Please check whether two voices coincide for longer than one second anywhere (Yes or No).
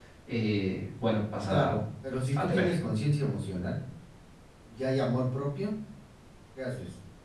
No